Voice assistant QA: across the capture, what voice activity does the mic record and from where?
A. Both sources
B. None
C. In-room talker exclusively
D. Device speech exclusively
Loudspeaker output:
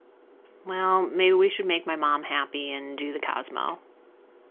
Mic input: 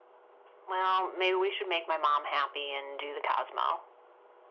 D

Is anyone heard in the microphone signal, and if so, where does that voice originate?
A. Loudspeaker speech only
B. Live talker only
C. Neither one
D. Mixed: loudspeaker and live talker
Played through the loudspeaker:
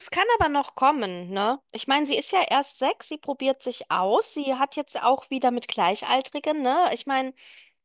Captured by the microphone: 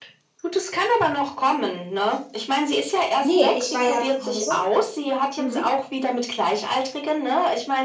D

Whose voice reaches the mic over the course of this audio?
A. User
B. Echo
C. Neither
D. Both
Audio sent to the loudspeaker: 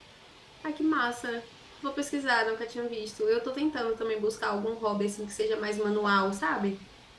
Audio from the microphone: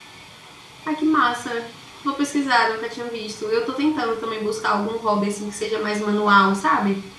B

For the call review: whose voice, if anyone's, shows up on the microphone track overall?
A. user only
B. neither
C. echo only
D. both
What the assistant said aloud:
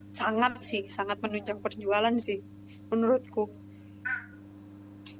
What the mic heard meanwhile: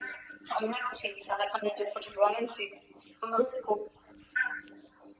C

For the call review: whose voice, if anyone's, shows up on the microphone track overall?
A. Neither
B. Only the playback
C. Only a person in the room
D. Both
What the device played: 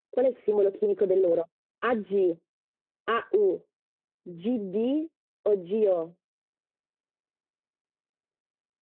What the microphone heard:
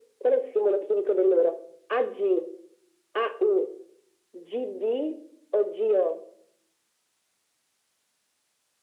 B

